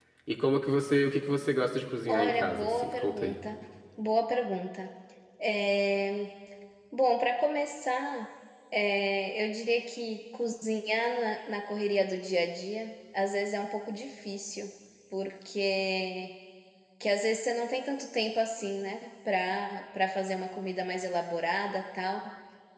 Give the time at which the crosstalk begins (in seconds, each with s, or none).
2.1 s